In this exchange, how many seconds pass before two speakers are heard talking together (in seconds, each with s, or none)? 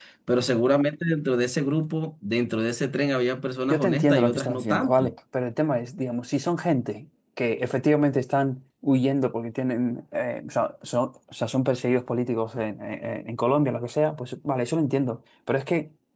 3.7 s